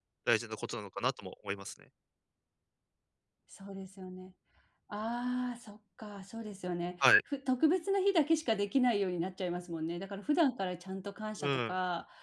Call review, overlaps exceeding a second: none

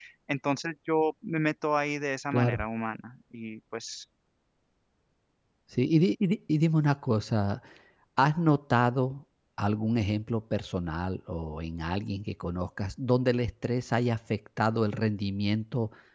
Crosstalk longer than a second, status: none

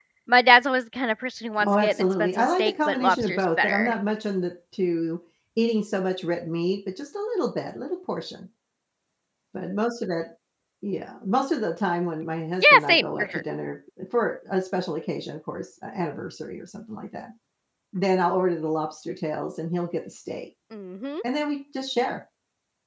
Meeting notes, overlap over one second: present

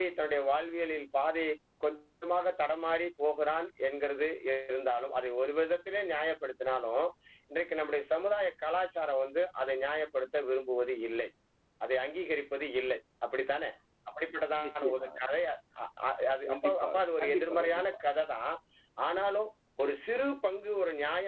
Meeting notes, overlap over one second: present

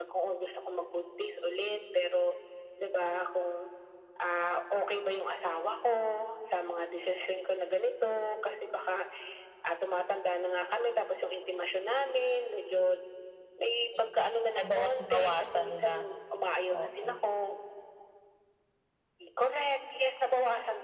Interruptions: present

